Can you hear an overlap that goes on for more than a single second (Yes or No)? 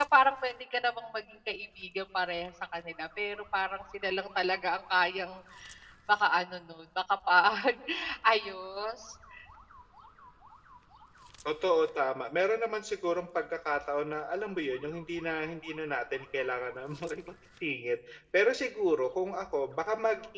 No